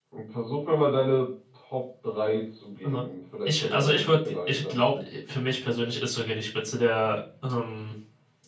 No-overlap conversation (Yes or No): No